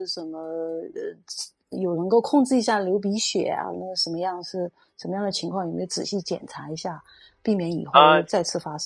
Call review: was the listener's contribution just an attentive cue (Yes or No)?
Yes